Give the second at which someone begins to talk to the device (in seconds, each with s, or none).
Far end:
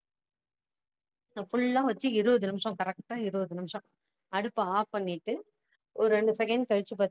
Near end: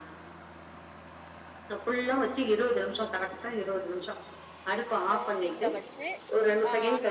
5.1 s